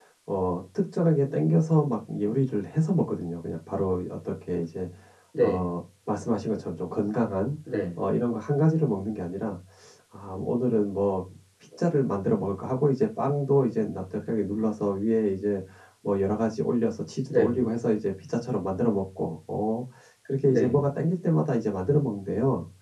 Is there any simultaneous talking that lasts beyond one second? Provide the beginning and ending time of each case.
none

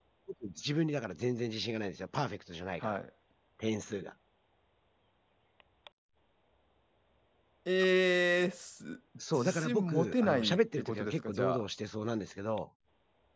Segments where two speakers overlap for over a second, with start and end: 9.3-11.6

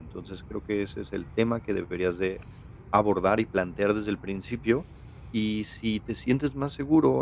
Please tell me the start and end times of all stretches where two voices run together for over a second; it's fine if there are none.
none

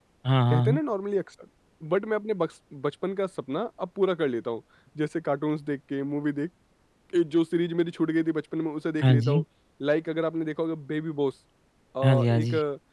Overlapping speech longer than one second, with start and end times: none

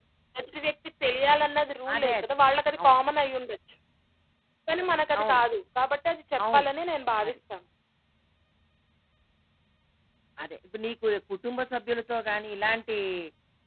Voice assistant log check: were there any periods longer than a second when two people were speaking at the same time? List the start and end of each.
none

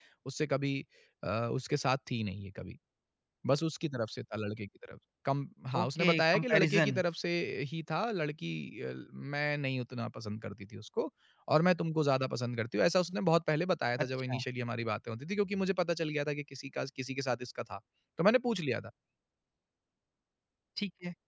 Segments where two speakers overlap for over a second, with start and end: 5.8-7.0

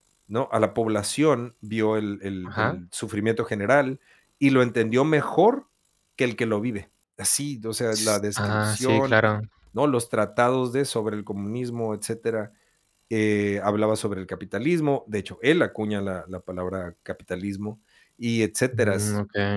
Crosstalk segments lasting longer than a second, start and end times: 7.9-9.2

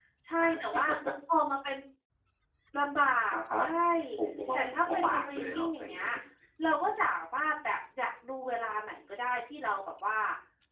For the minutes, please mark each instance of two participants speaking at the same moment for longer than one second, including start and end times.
4.5-6.1

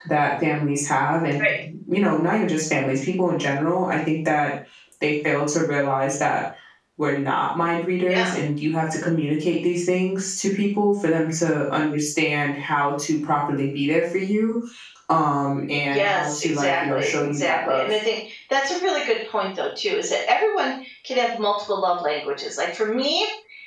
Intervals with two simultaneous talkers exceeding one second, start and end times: 15.9-17.9

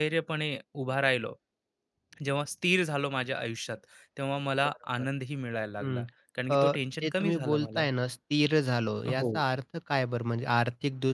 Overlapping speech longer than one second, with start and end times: 6.5-7.9

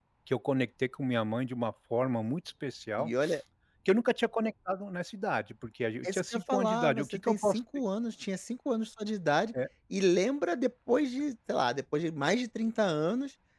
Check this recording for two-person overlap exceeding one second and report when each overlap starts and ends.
6.0-7.6

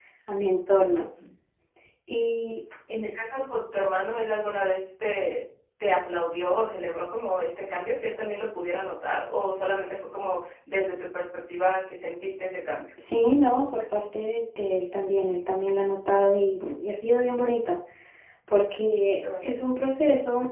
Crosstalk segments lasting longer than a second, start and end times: none

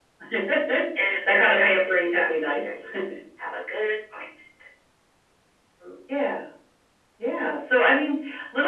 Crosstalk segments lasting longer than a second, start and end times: 1.0-2.8

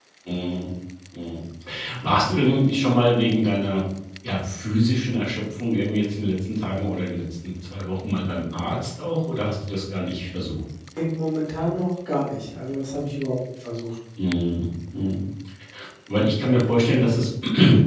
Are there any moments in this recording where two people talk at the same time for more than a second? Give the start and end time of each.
none

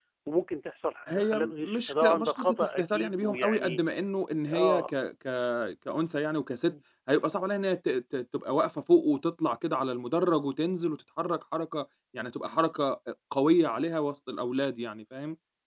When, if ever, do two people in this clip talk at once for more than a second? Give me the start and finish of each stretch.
1.1-3.8

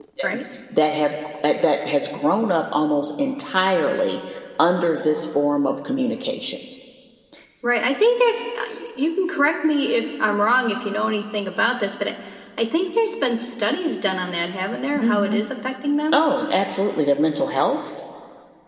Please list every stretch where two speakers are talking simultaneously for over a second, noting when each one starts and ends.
none

